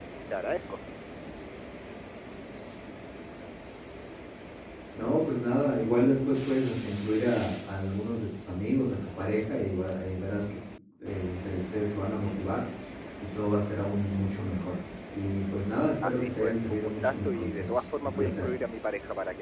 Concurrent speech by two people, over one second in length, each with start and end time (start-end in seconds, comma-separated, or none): 16.0-18.5